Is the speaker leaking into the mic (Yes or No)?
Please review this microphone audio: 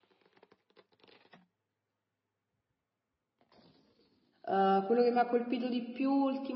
No